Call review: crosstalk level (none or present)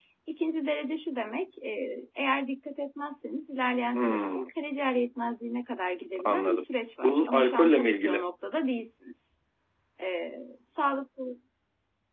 present